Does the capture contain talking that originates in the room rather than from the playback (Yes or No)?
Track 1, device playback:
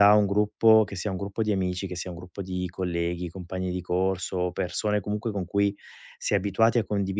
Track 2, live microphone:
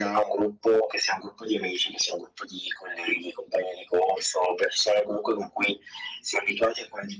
No